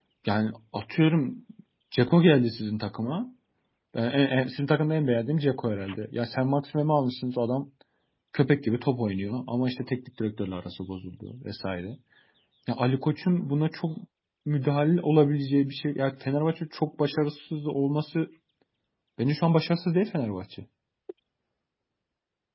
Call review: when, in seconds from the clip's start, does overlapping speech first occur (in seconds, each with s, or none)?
none